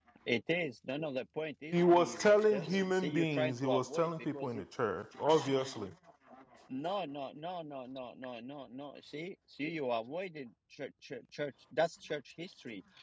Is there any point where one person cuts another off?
Yes, from 1.7 s

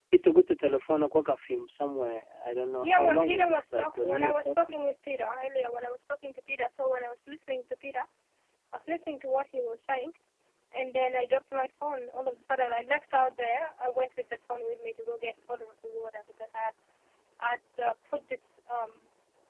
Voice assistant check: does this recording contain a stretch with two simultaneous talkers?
Yes, from 2.8 s

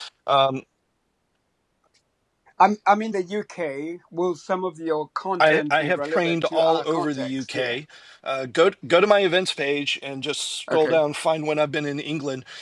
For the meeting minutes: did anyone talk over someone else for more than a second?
Yes, from 5.4 s

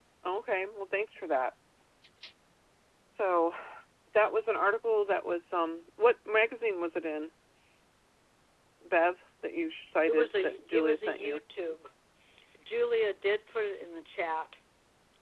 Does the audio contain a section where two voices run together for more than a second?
Yes, from 10.1 s

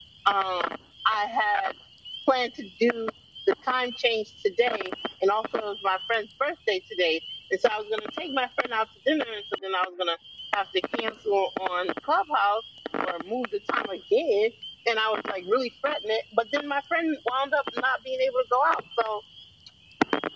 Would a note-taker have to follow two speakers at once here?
No

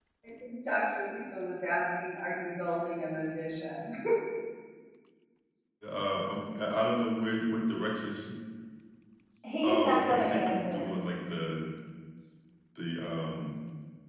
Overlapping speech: Yes, from 9.6 s

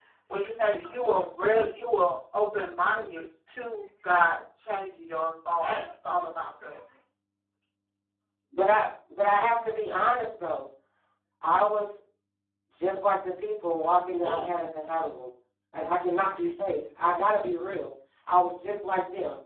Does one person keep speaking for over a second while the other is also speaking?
No

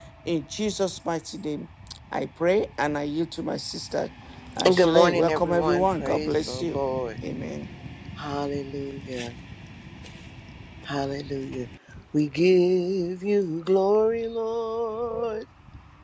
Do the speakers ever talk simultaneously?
Yes, from 4.6 s

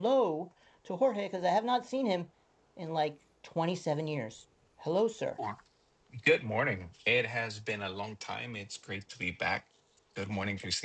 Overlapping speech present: No

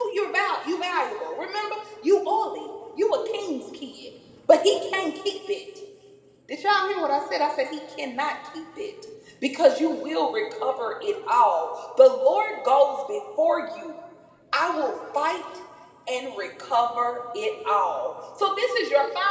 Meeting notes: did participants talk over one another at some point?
No

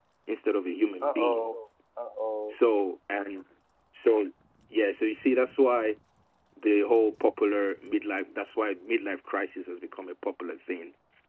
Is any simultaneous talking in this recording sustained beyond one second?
No

